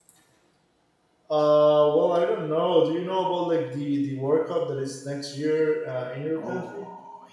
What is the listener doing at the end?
taking over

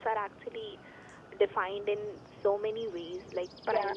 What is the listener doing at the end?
listening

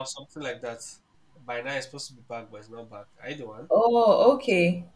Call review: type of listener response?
taking over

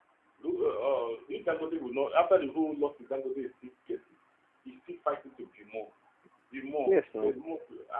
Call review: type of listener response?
listening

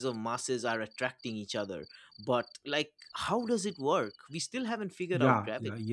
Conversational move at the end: taking over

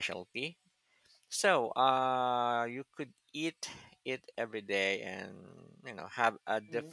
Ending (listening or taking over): taking over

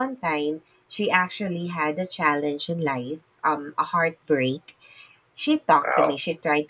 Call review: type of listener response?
listening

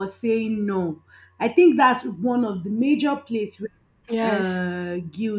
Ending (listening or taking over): listening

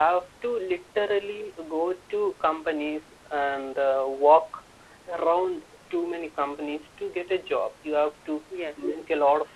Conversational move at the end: listening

